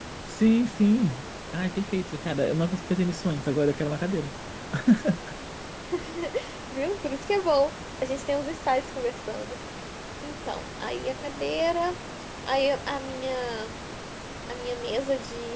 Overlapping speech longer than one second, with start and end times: none

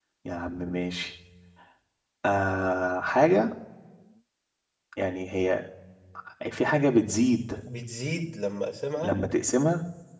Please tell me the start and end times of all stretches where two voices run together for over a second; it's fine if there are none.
none

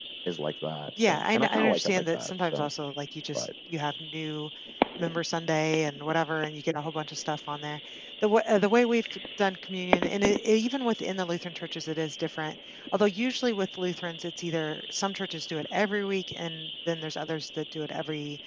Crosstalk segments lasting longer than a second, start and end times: 1.1-2.7

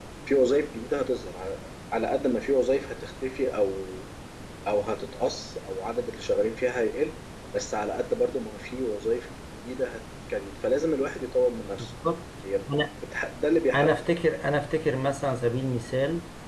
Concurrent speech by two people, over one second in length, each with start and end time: none

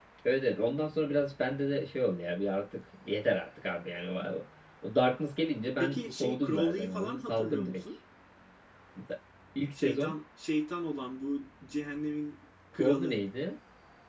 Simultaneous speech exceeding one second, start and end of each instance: 5.7-7.8

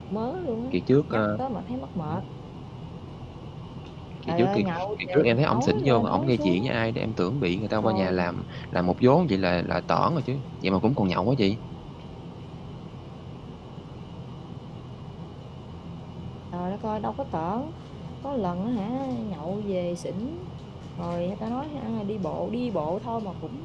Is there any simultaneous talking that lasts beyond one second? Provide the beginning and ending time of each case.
4.3-6.6

